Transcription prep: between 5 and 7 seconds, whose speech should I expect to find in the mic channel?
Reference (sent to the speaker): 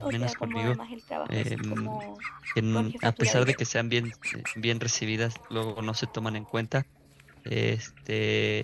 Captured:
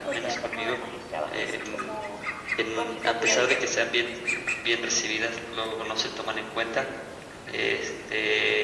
echo only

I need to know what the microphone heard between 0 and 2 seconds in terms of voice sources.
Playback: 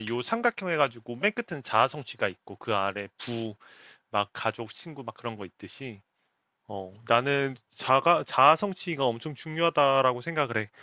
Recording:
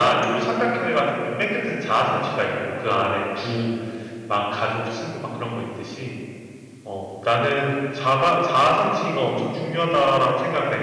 echo only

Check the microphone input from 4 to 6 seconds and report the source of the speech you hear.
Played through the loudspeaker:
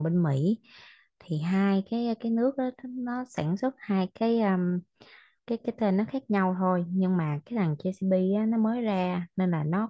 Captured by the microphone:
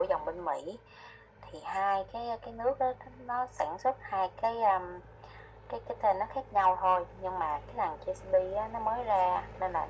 echo only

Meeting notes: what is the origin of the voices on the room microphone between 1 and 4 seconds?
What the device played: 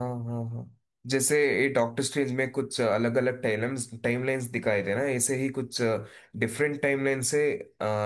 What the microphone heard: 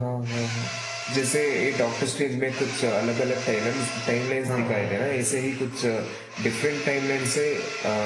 echo only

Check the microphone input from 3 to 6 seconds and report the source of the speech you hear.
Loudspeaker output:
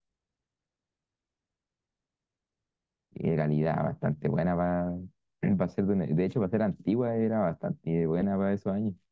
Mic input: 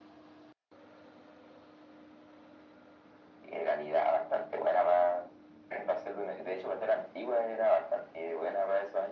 echo only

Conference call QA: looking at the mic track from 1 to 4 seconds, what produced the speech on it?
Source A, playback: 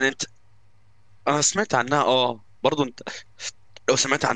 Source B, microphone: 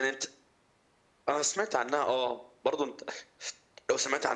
echo only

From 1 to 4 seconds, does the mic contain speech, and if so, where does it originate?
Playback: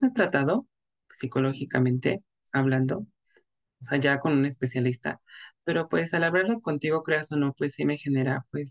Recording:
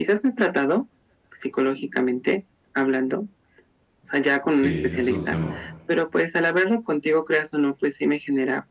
echo only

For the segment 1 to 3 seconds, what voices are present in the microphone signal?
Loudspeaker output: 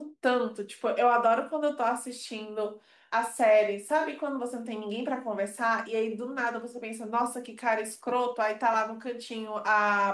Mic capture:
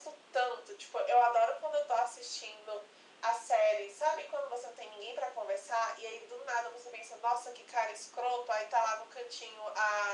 echo only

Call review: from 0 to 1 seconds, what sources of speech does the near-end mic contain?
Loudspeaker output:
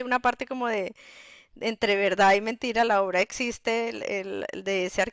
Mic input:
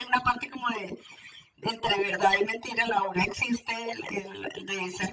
echo only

